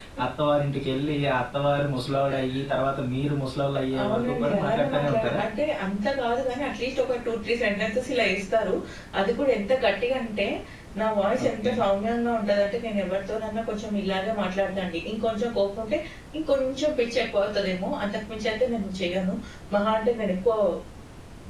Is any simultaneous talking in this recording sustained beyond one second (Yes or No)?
Yes